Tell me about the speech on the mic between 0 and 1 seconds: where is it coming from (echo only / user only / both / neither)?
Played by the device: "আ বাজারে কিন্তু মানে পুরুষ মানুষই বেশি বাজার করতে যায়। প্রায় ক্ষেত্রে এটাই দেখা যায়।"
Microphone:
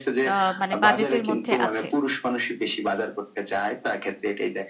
both